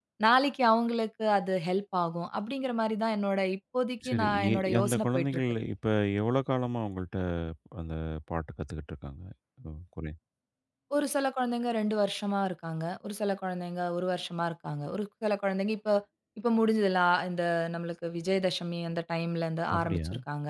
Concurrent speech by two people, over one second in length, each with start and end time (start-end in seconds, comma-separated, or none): 4.1-5.4